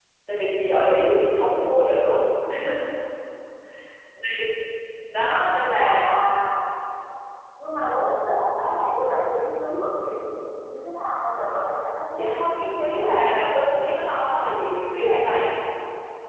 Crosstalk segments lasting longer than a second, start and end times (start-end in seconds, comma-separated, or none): 12.2-13.5